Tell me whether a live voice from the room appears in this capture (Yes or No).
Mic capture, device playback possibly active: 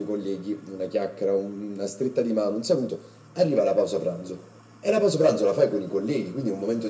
No